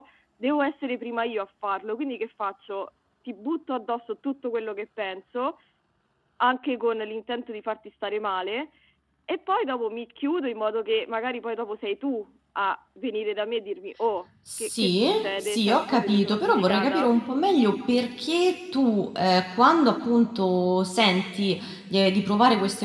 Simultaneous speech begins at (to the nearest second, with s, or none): 14 s